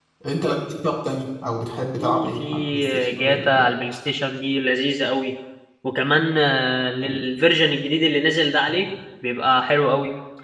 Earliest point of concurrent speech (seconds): 2.0 s

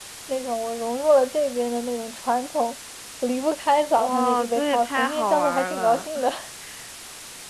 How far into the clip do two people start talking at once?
4.0 s

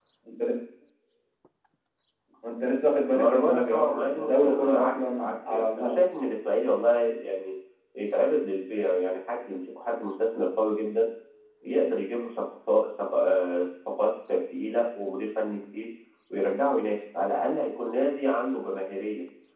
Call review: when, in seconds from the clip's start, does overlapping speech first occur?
3.1 s

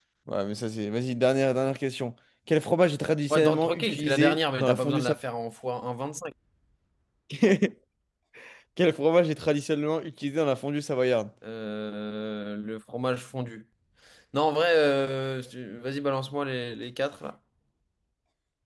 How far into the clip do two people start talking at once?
3.3 s

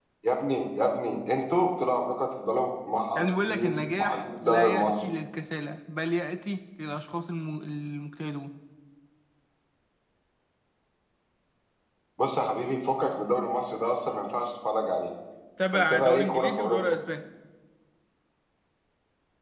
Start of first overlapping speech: 3.2 s

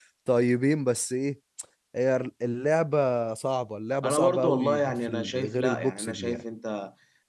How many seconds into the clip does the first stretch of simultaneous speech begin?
4.0 s

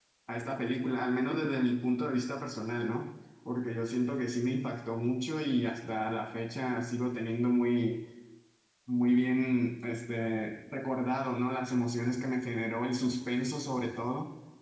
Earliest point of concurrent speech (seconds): none

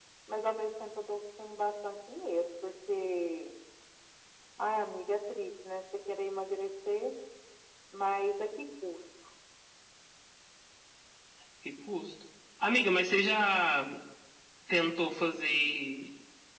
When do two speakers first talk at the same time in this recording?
none

